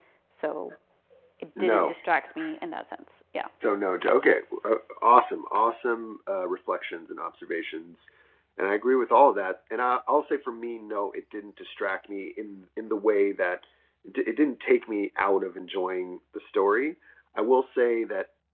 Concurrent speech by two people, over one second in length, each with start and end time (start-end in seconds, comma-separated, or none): none